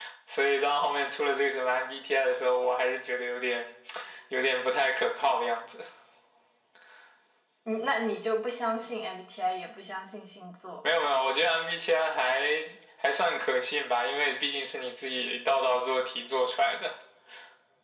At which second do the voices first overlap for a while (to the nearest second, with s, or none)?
none